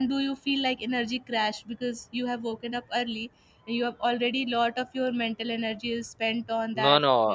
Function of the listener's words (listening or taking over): taking over